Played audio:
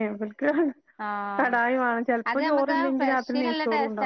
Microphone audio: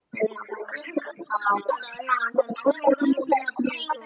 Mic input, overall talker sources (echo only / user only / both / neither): echo only